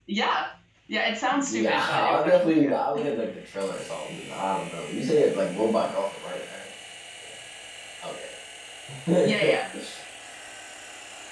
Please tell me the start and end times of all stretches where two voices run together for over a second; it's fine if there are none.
1.5-2.8

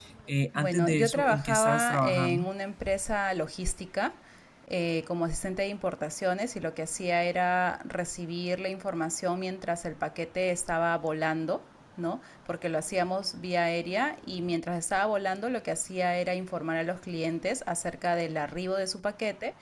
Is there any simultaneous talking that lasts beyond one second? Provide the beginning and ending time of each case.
0.5-2.5

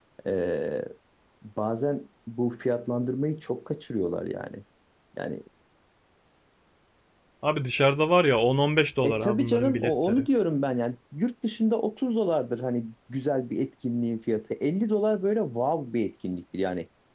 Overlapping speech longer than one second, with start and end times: 9.0-10.3

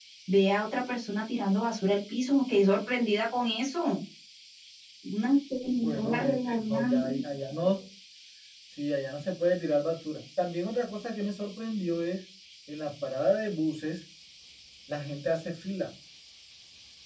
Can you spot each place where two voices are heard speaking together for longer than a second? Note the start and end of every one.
5.8-7.1

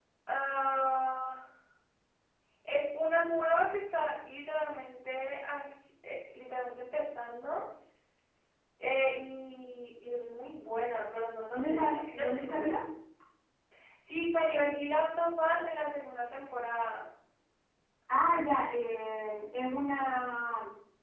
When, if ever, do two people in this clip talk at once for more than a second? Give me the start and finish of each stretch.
11.5-12.7

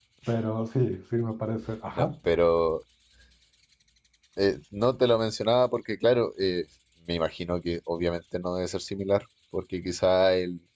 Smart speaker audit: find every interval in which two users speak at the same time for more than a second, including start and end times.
none

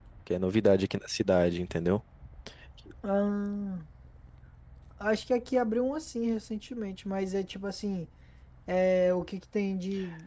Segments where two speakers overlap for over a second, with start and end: none

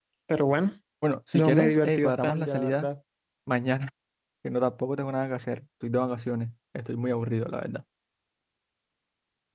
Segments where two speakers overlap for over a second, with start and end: 1.3-2.9

